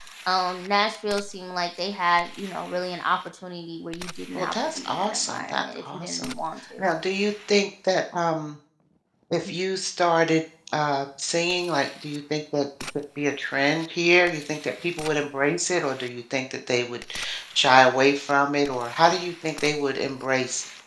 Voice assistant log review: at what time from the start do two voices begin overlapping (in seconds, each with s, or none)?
4.4 s